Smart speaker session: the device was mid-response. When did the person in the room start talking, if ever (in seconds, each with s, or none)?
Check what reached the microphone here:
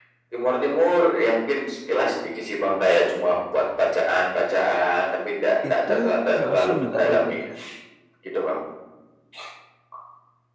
5.7 s